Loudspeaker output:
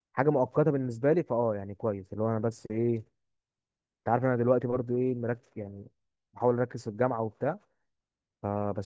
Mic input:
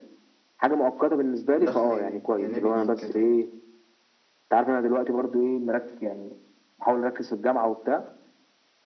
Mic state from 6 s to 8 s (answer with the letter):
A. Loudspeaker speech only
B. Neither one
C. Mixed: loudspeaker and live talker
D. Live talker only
A